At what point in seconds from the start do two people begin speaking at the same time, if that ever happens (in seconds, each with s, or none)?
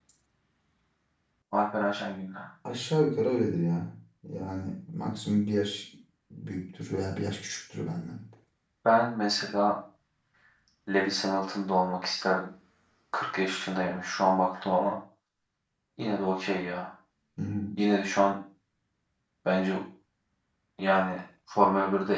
none